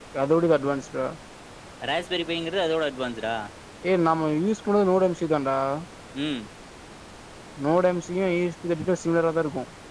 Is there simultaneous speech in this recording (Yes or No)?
No